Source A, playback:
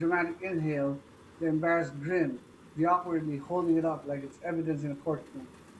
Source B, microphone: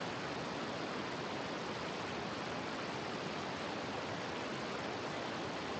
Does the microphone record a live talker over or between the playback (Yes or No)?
No